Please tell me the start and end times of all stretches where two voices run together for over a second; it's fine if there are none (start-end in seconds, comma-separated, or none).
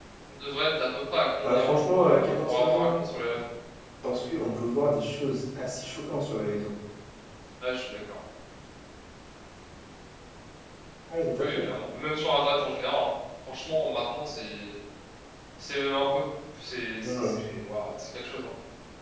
1.4-2.9